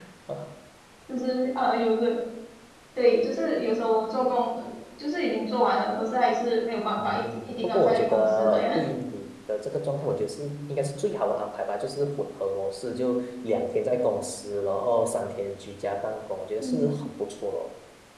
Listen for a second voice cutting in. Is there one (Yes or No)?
Yes